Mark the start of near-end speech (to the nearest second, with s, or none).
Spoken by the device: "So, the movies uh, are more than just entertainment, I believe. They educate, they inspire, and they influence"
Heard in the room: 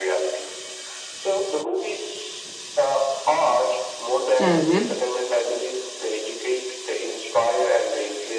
4 s